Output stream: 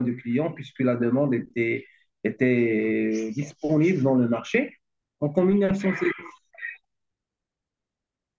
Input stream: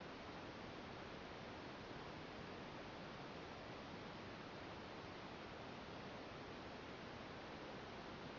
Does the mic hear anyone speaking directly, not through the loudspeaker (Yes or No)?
No